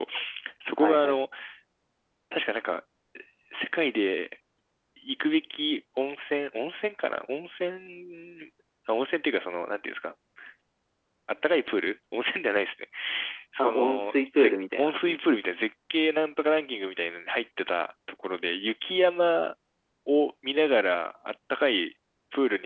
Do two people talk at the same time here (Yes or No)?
Yes